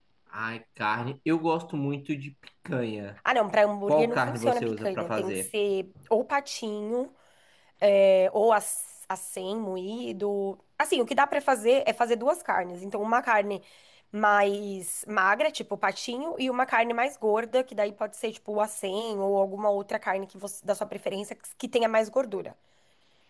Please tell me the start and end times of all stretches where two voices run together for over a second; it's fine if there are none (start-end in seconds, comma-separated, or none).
3.9-5.5